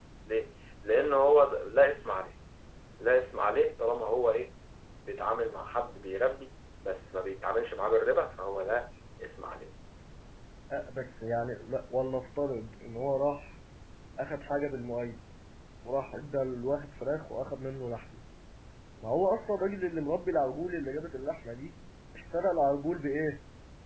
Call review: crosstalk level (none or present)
none